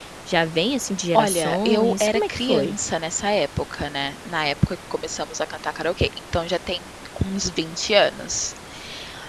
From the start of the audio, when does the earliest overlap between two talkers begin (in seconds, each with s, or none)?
1.1 s